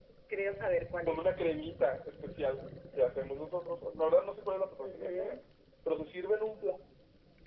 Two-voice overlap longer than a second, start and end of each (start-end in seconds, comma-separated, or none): none